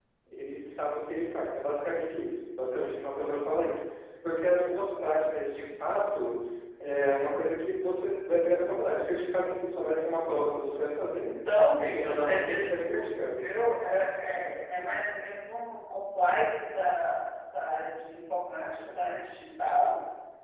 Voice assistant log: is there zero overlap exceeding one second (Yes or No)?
No